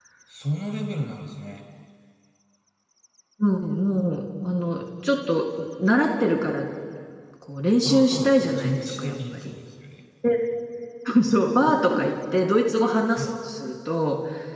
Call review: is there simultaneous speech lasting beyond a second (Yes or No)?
Yes